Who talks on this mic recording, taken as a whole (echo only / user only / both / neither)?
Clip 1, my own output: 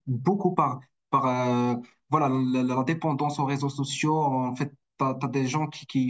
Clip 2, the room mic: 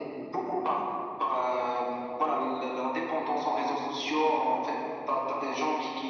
echo only